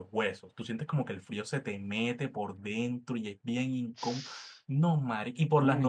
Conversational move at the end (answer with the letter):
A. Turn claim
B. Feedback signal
B